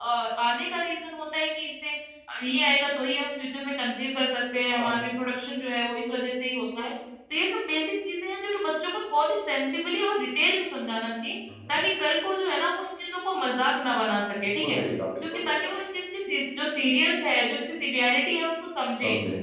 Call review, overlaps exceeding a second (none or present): none